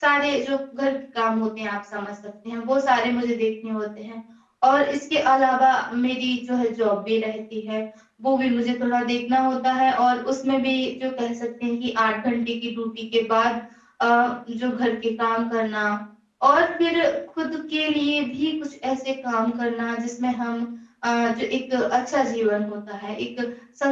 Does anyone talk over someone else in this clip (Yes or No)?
No